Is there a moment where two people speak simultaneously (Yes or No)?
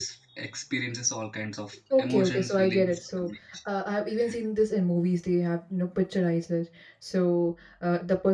Yes